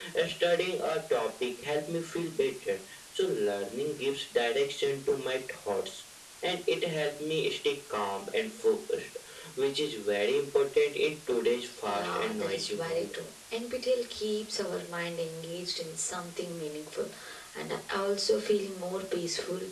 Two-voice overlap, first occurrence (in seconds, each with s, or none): 11.8 s